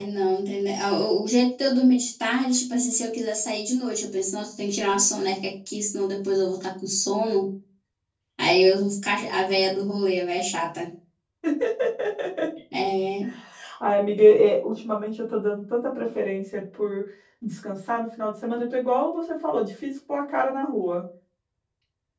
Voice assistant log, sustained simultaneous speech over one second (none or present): none